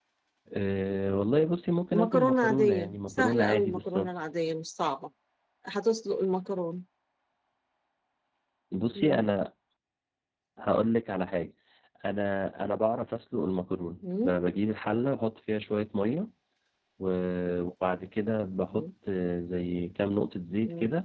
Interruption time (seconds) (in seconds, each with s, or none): 1.9 s